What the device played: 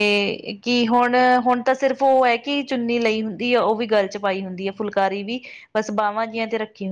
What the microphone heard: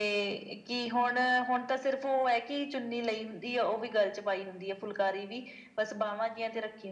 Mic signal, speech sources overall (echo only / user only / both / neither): echo only